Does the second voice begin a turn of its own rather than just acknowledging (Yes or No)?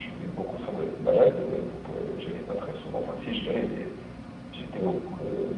No